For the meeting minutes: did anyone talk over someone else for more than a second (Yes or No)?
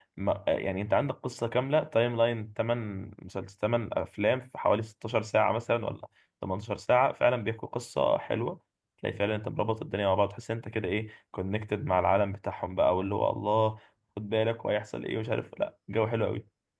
No